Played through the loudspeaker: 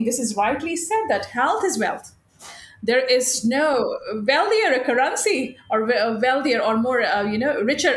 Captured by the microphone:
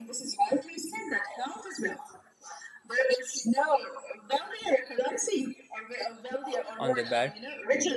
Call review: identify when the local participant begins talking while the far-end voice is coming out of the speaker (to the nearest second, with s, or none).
7 s